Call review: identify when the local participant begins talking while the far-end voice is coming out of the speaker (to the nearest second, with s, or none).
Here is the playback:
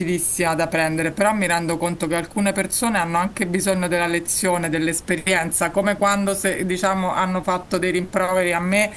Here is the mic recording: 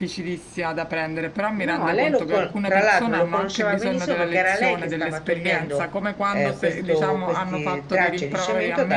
2 s